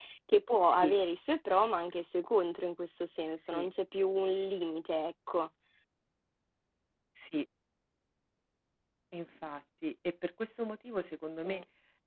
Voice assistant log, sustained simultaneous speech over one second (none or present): none